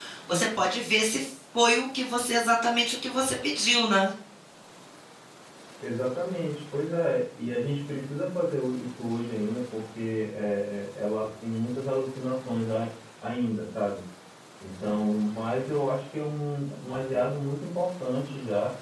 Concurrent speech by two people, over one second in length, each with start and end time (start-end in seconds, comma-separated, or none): none